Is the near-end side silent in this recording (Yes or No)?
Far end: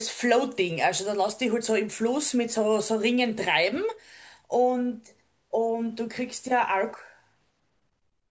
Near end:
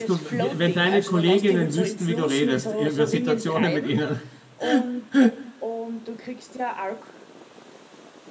No